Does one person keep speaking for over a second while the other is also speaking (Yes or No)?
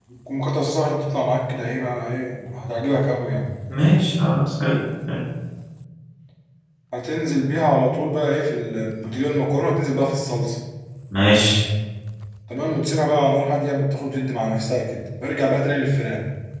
No